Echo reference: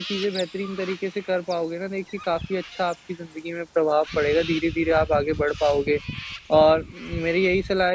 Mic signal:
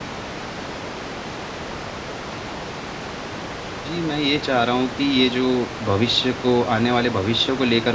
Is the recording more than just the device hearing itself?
Yes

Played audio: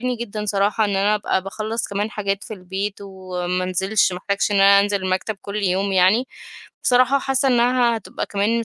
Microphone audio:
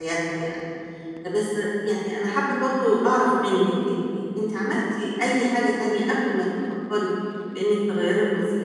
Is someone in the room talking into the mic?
Yes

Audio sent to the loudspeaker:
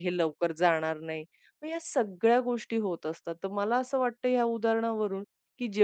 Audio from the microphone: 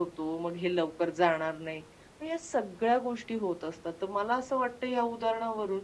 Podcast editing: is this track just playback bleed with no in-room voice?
Yes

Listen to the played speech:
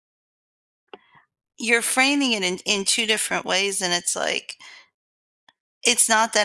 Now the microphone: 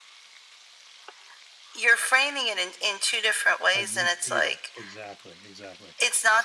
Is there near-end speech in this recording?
Yes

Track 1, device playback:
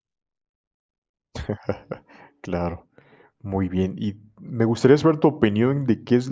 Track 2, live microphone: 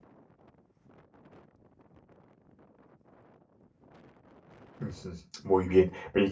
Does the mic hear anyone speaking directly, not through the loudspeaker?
Yes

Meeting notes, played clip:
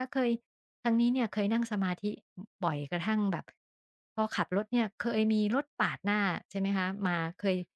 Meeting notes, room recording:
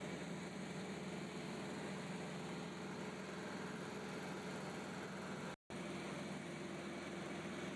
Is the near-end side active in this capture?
No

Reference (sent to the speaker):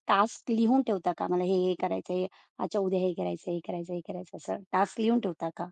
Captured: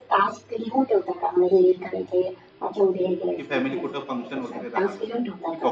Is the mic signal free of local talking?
No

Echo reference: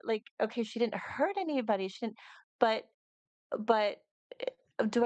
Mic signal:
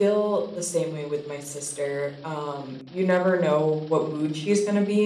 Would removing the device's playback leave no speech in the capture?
No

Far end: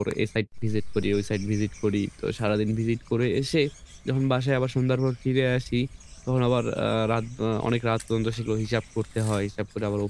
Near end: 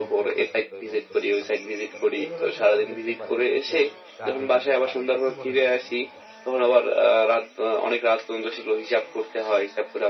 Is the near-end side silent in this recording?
No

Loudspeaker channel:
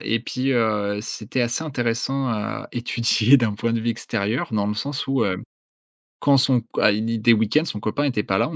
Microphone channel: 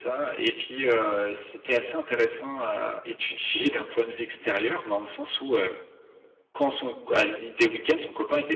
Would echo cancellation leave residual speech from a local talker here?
No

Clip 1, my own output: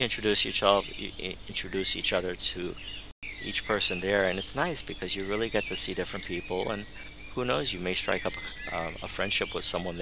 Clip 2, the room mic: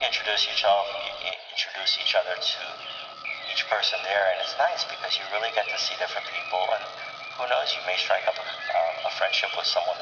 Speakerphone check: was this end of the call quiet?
Yes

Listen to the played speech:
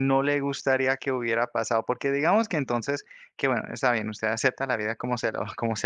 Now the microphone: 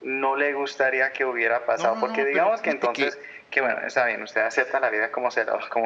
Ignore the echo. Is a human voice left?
Yes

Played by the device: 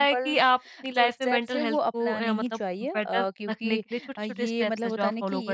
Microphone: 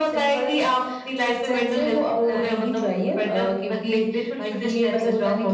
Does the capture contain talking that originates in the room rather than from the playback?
No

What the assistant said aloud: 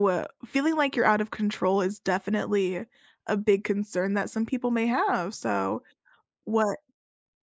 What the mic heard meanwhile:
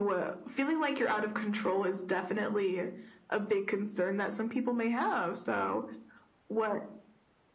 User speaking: No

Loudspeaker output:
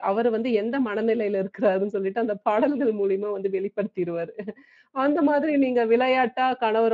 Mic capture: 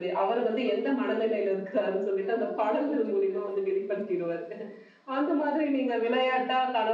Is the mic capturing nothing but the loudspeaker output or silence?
No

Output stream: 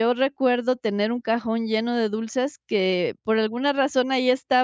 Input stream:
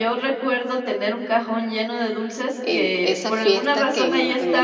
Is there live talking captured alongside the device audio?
Yes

